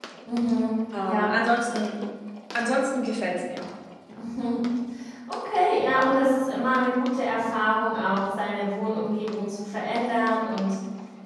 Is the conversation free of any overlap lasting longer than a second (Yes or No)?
Yes